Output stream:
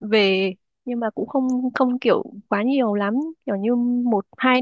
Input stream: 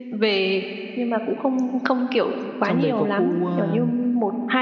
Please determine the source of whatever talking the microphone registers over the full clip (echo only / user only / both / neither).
both